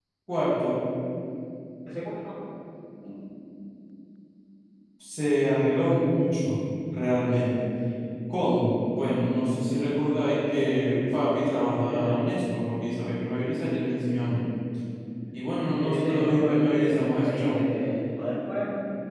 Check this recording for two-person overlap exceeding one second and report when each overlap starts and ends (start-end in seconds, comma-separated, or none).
15.8-17.6